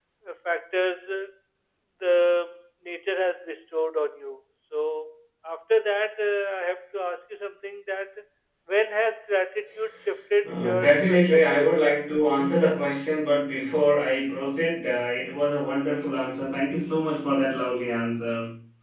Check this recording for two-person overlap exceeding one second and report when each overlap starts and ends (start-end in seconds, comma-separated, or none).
10.4-11.7